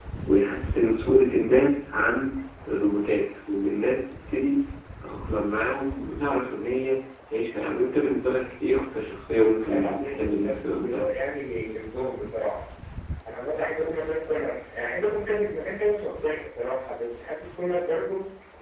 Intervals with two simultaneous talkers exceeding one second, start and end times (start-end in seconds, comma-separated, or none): 9.5-11.1